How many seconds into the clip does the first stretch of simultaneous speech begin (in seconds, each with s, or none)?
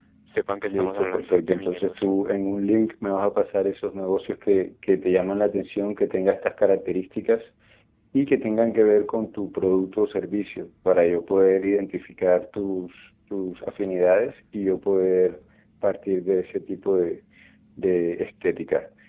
0.7 s